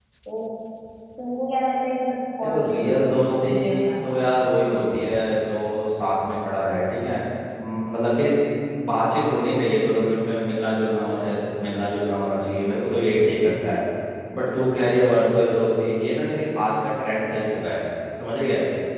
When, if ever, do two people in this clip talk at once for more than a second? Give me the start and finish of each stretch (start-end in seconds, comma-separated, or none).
2.4-4.2